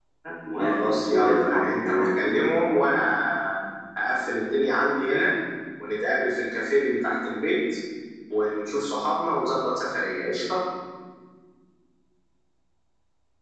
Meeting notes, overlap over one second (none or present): present